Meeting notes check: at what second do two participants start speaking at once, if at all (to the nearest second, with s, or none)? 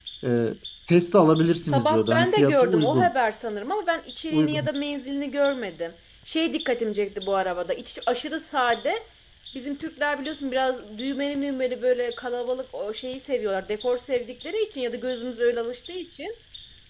2 s